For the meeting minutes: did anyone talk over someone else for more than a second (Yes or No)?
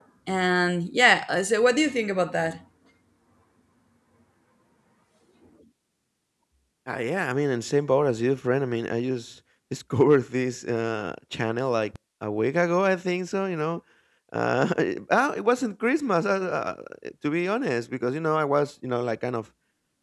No